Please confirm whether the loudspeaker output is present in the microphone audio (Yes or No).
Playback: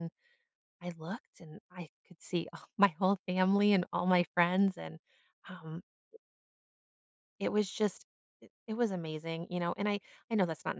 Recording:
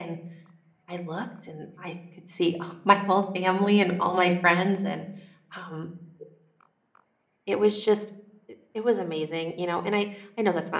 Yes